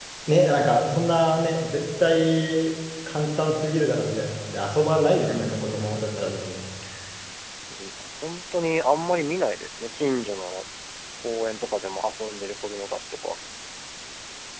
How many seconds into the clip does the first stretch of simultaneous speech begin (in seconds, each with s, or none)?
5.2 s